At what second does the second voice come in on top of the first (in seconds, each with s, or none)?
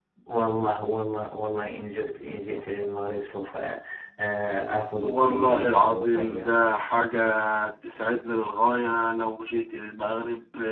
5.0 s